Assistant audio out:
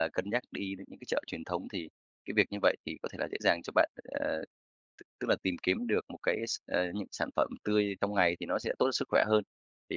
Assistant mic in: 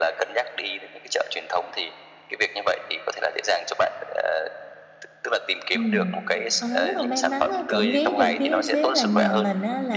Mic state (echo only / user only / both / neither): both